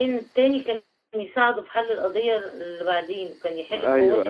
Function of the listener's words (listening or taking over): taking over